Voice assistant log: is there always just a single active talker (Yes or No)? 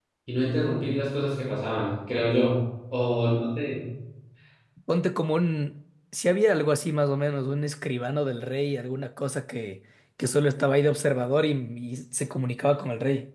Yes